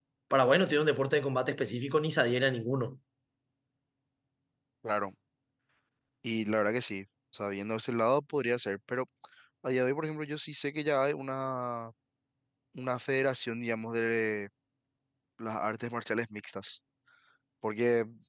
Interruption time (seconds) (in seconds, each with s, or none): none